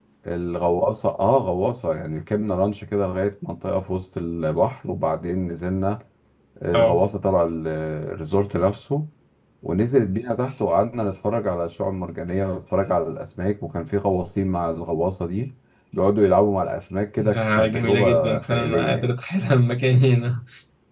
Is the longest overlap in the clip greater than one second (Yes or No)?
Yes